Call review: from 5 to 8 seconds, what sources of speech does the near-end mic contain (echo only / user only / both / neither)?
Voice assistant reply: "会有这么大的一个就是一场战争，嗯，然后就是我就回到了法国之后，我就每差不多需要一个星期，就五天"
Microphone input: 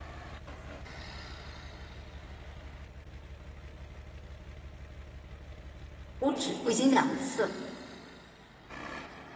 user only